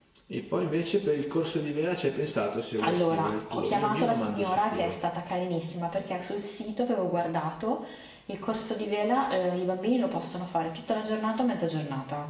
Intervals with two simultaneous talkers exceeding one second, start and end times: 2.8-5.0

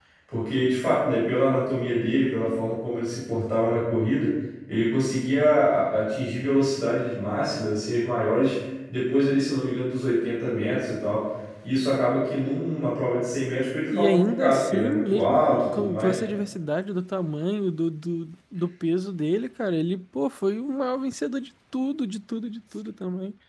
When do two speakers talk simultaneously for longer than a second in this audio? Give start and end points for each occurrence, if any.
13.9-16.2

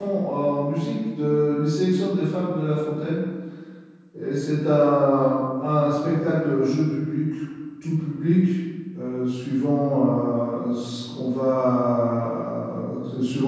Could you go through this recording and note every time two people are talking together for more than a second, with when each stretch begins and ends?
none

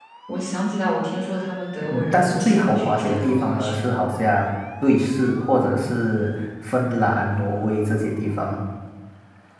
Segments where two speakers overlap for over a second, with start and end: 1.9-3.8

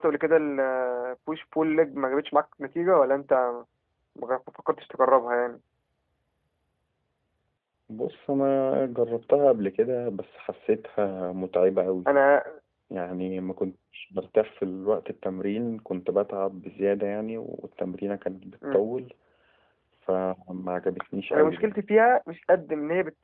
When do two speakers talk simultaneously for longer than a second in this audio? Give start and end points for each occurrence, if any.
none

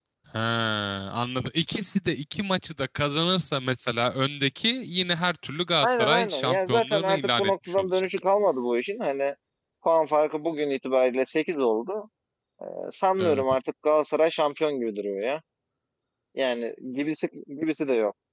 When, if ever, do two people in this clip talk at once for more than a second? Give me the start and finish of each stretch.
5.8-8.0

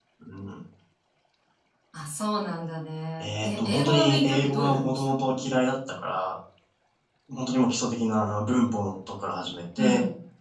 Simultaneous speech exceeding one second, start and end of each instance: 3.2-5.4

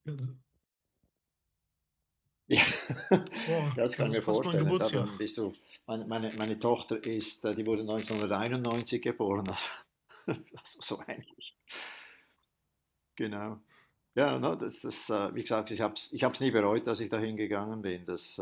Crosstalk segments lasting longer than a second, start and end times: 3.7-5.1

